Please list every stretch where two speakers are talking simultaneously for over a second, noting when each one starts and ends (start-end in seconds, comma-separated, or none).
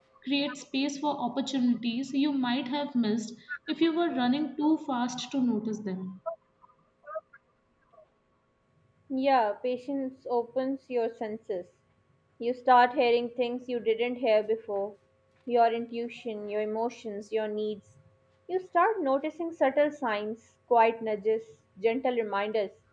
none